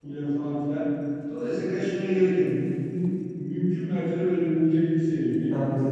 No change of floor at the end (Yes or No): Yes